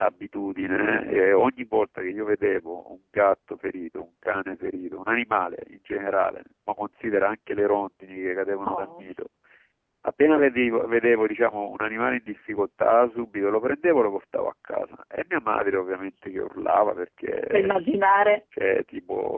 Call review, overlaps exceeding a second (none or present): none